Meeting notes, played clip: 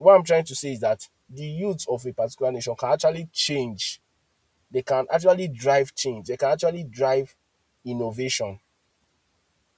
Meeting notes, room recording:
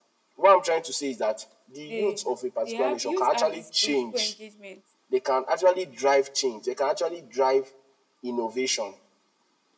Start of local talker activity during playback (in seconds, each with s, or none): 1.9 s